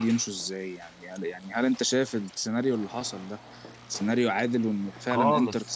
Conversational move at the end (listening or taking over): taking over